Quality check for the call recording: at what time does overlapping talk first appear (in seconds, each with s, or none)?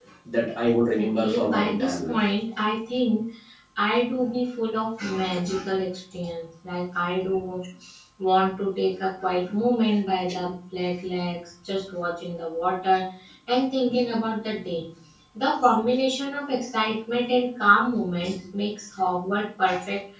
1.0 s